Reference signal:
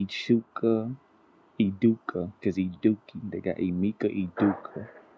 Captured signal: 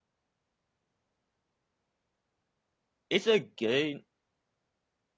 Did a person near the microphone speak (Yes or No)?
Yes